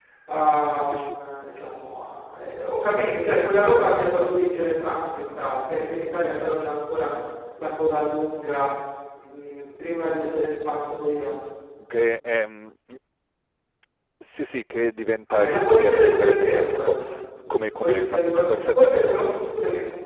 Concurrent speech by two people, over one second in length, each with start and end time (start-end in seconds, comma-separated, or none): 15.3-16.9, 17.5-18.8